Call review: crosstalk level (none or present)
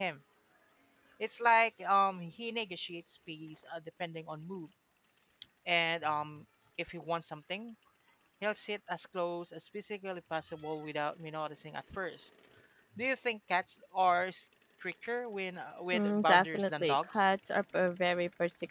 present